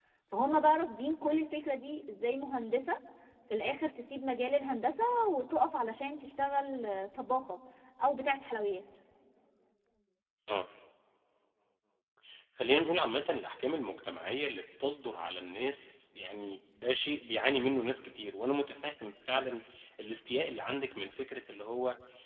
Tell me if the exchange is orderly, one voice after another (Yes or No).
Yes